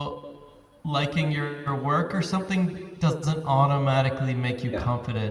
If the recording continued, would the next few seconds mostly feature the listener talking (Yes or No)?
No